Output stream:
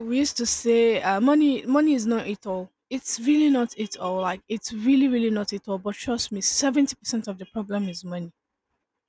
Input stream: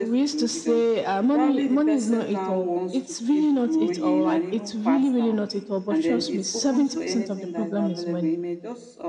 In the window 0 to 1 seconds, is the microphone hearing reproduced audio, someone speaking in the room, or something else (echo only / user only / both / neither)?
both